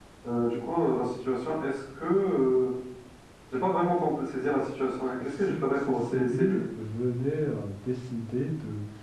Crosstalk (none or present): present